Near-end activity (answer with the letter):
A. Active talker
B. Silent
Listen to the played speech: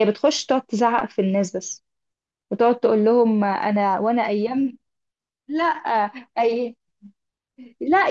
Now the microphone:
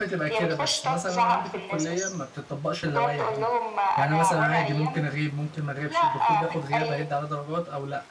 A